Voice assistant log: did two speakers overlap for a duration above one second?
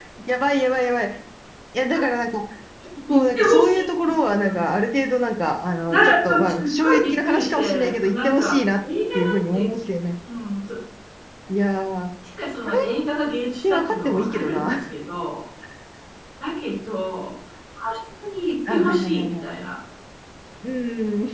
Yes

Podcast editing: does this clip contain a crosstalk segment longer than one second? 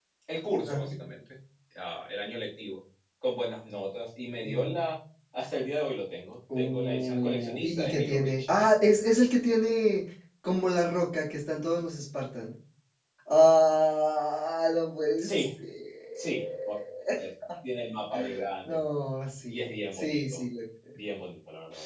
Yes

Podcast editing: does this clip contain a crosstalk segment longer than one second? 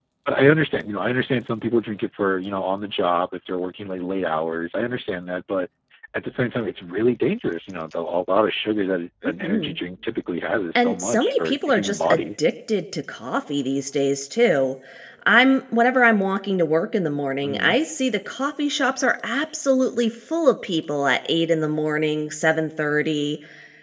Yes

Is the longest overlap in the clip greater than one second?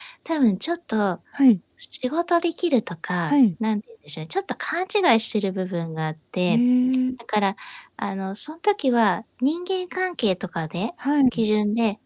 No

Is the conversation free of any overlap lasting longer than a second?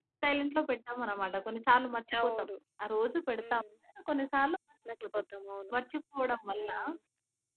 Yes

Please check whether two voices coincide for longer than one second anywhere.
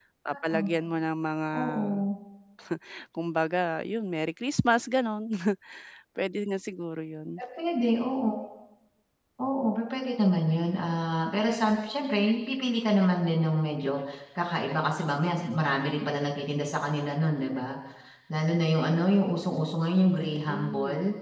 No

